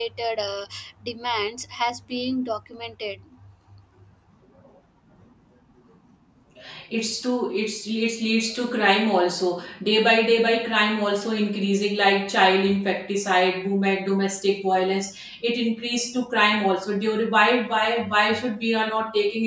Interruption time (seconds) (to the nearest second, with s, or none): none